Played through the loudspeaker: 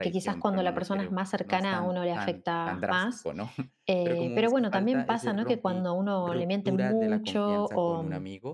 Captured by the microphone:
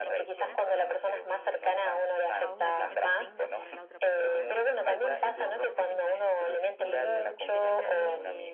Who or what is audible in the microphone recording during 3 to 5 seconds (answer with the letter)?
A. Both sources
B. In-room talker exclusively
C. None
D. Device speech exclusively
A